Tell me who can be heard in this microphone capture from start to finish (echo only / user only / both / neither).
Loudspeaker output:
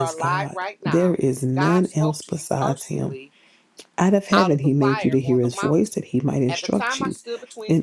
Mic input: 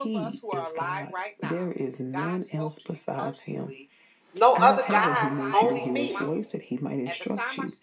both